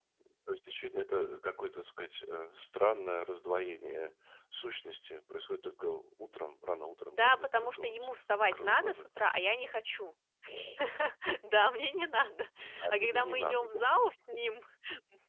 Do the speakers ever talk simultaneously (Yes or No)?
Yes